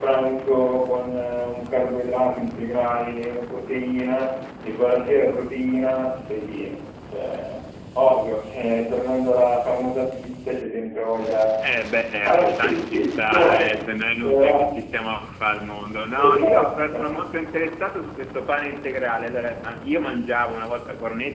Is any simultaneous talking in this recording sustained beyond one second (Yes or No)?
Yes